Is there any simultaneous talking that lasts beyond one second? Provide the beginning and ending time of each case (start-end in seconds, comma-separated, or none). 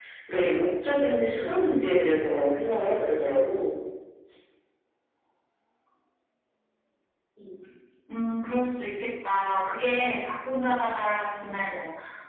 none